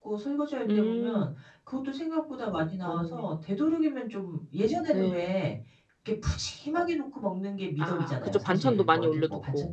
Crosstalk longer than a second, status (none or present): present